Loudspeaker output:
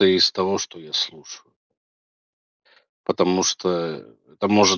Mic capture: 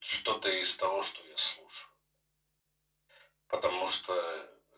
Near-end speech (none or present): none